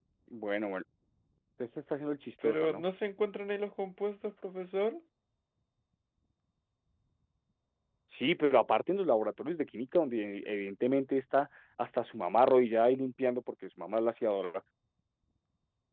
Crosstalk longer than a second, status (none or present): none